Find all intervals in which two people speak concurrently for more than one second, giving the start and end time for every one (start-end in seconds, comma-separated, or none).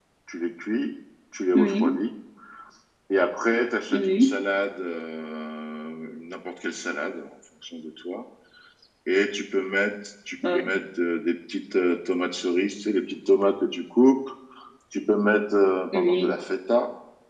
none